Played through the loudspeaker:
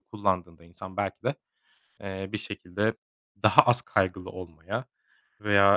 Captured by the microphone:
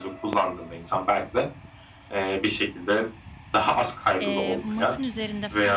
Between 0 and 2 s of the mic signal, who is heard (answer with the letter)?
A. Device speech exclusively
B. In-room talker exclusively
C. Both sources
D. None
A